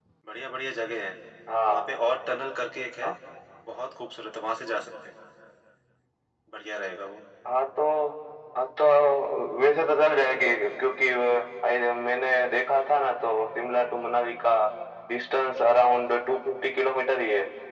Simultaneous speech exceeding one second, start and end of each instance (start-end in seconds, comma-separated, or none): none